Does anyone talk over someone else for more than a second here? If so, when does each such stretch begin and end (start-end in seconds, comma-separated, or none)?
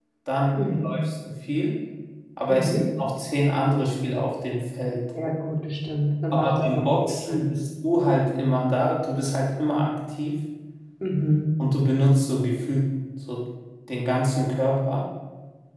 6.3-7.7